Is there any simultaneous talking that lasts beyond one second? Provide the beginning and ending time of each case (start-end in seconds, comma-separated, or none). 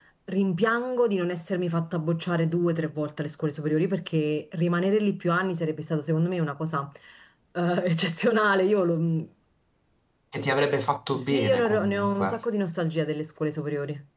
11.1-12.4